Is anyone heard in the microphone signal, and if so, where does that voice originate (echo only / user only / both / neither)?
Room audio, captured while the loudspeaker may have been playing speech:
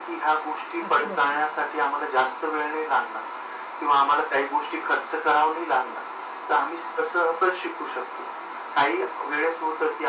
both